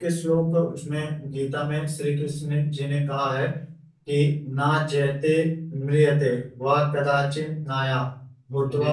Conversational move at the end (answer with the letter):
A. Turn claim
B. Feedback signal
B